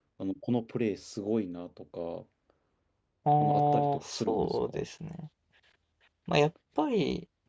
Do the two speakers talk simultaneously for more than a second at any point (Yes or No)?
Yes